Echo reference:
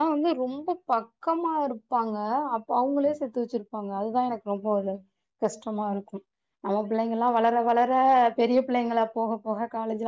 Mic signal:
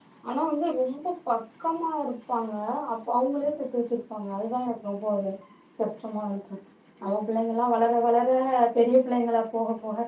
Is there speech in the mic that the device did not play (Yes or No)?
No